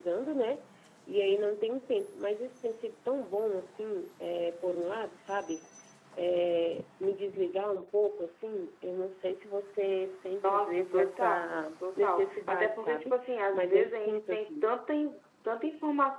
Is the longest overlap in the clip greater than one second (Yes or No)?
Yes